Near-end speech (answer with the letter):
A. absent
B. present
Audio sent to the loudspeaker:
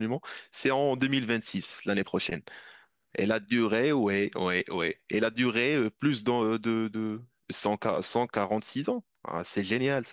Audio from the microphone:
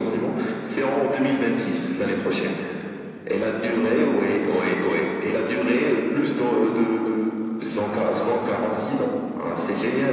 A